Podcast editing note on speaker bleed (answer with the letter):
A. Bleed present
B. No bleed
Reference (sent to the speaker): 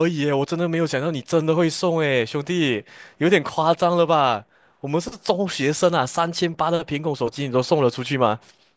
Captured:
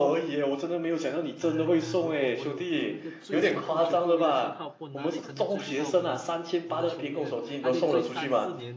A